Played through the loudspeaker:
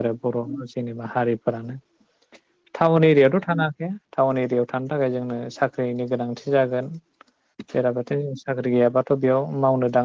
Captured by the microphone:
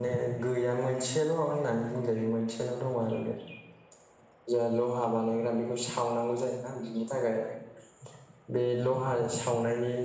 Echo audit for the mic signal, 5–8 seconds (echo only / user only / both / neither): user only